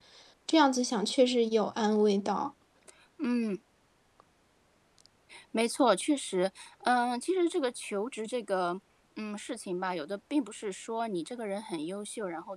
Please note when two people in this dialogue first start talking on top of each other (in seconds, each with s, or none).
none